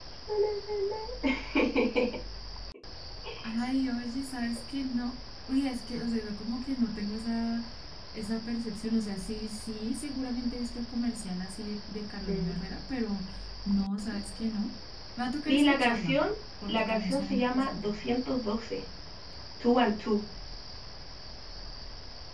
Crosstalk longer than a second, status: present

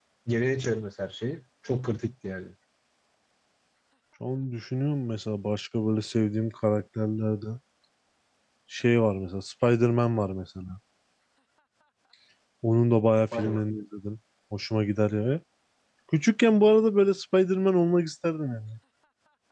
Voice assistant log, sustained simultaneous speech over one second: none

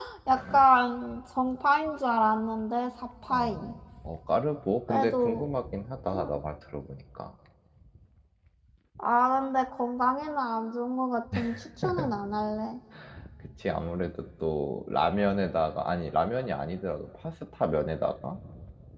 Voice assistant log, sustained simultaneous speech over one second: none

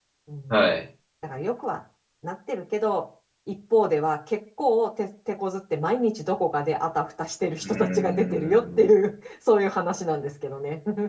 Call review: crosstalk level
present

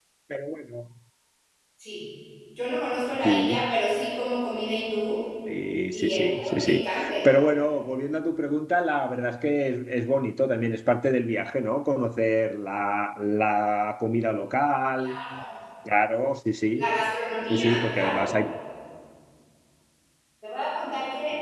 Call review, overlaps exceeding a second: present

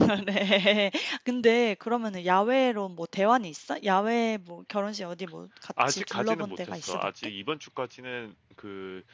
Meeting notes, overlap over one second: present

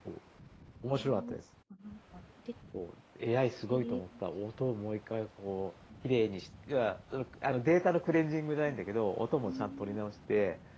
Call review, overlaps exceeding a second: none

